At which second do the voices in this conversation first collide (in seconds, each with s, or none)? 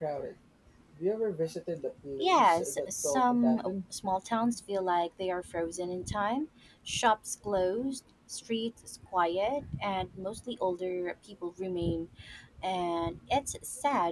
2.2 s